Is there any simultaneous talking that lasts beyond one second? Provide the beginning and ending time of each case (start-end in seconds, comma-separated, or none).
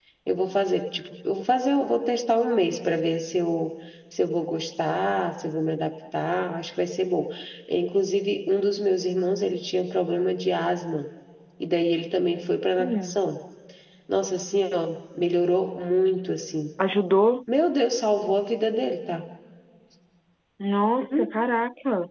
none